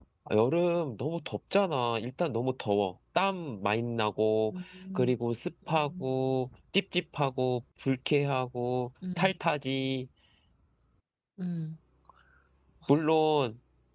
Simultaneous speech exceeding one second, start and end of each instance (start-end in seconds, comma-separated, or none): none